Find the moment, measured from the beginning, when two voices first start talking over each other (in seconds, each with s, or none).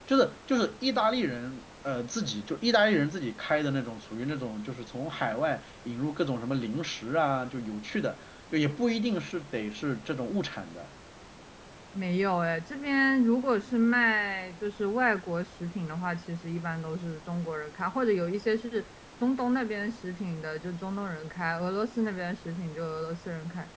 none